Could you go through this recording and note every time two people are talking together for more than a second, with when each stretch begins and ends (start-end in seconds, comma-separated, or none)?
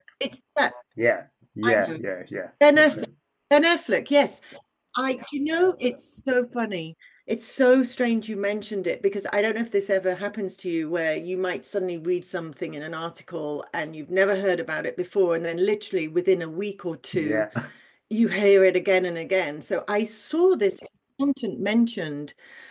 none